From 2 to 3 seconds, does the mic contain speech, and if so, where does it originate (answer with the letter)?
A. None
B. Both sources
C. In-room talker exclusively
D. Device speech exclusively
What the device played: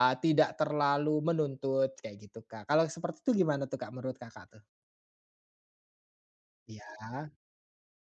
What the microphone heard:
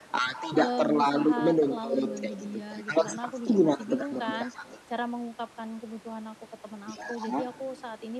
B